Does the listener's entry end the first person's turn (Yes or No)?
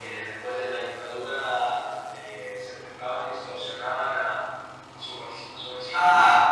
Yes